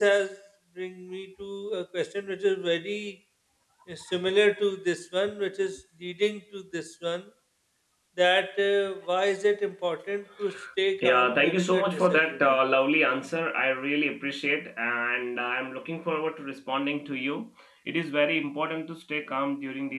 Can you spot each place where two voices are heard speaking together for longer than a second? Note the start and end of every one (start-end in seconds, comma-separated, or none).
11.0-12.6